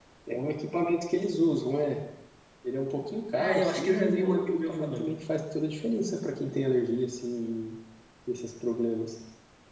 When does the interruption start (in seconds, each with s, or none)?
3.3 s